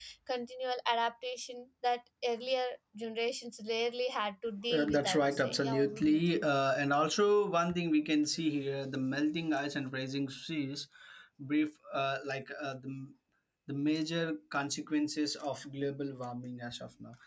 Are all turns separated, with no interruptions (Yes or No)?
No